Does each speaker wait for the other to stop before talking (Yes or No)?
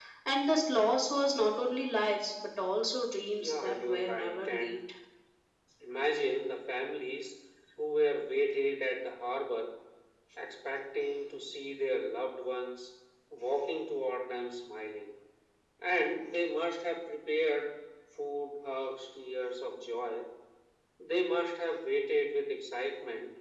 No